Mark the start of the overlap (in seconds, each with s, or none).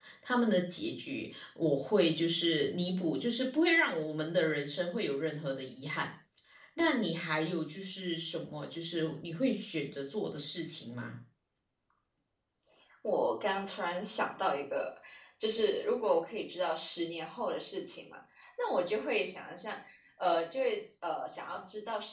none